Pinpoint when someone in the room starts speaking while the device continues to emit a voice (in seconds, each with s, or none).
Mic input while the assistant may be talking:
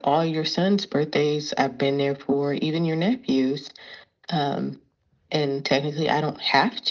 none